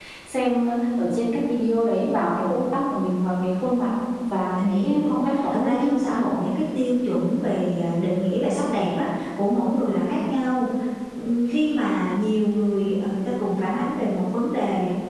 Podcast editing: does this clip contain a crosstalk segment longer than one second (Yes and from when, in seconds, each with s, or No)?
Yes, from 4.7 s